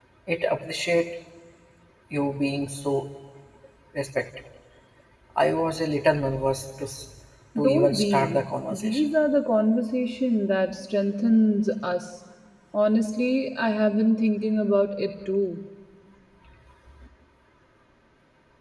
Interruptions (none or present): present